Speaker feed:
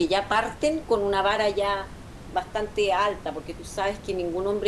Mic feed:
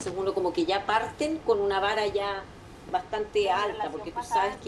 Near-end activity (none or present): present